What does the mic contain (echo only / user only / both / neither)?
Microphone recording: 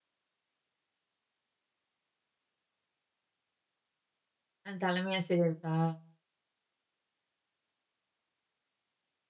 user only